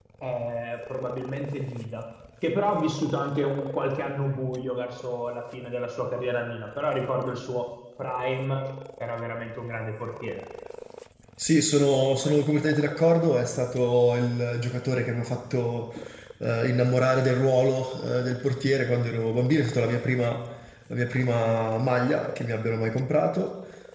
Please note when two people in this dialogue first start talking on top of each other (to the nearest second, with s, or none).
none